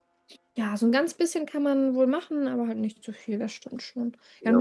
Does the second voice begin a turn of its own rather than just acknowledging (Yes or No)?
No